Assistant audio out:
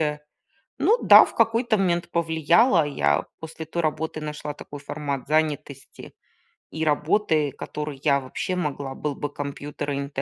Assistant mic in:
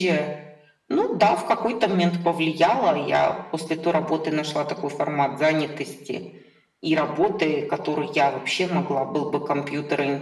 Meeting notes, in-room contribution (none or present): none